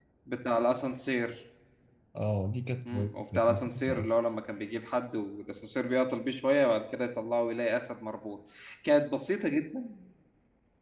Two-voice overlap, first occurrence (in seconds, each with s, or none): 2.9 s